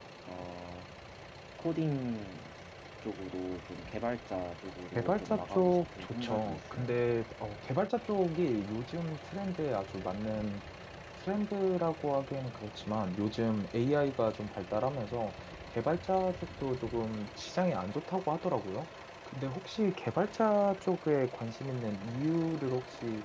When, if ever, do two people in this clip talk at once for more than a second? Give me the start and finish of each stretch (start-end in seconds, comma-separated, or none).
5.0-7.0